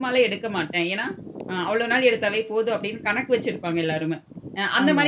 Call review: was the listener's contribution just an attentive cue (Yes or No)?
Yes